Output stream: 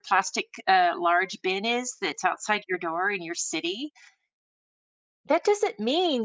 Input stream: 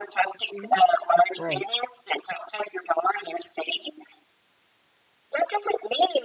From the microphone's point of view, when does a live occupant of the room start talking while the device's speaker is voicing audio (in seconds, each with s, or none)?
0.5 s